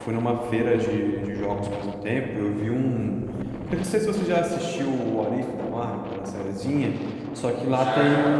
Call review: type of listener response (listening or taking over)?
listening